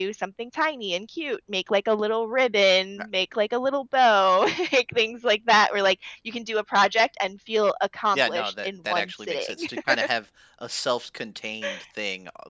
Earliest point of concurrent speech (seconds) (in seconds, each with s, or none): 8.1 s